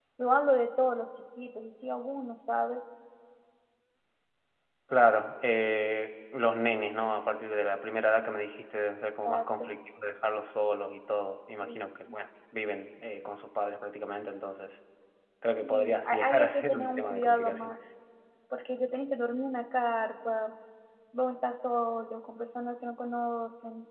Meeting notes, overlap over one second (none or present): present